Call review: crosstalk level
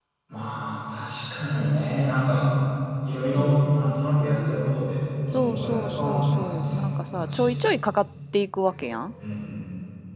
present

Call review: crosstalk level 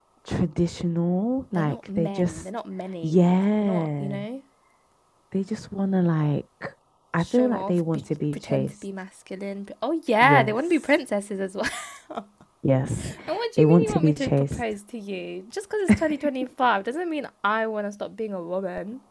present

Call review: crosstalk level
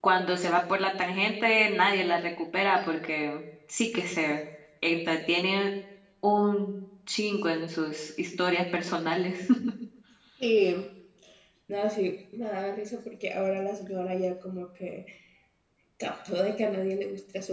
none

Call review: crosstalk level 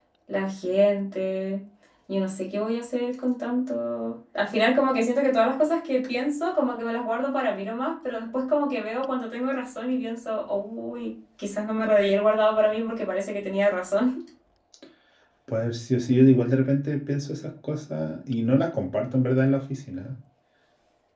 none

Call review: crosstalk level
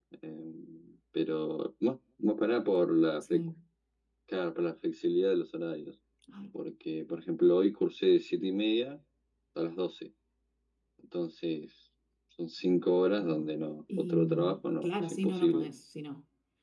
present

